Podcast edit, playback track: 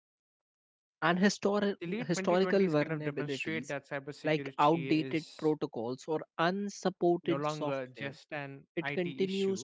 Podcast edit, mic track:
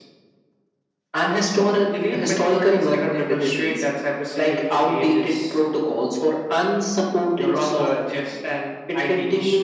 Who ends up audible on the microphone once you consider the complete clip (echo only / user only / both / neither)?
echo only